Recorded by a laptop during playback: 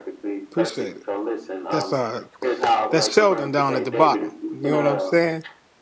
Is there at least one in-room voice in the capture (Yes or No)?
Yes